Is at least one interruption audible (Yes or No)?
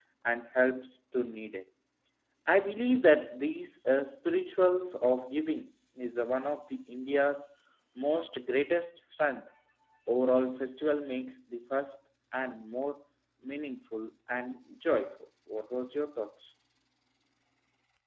No